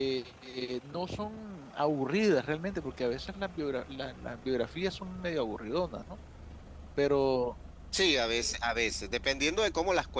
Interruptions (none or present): none